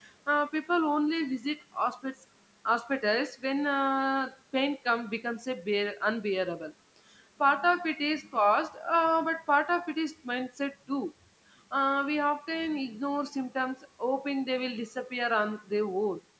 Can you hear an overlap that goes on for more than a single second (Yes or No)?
No